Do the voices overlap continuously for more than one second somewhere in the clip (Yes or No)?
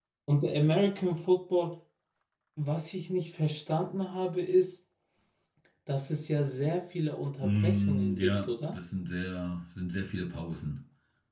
Yes